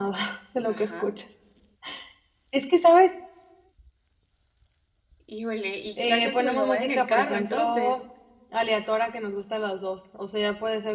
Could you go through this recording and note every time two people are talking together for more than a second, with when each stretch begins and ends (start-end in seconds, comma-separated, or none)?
6.0-8.0